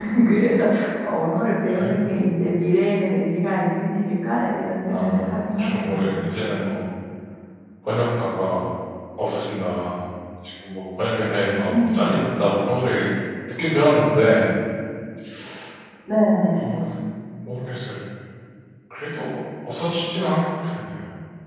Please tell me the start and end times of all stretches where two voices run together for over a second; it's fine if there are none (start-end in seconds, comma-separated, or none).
4.9-6.2